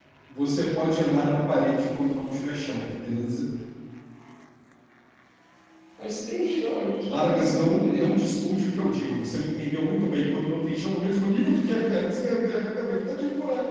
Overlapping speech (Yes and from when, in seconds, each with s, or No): Yes, from 7.1 s